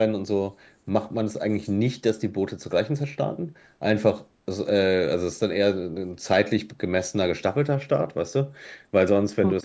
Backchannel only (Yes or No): Yes